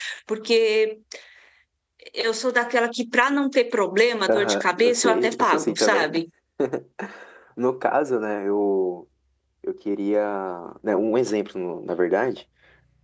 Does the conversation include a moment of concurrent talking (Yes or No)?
Yes